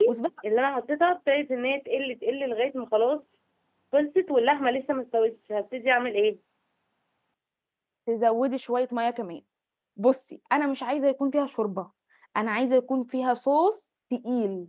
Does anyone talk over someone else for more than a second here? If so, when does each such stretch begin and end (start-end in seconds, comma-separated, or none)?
none